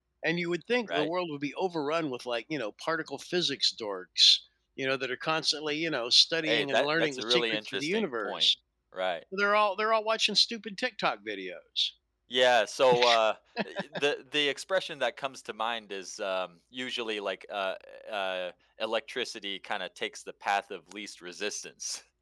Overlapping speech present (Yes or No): Yes